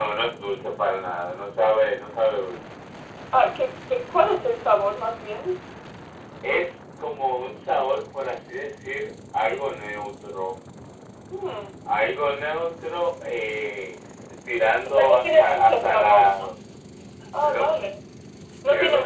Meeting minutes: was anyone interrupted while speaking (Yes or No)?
Yes